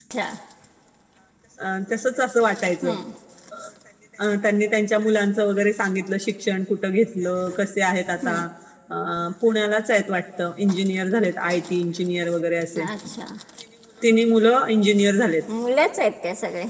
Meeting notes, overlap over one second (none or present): none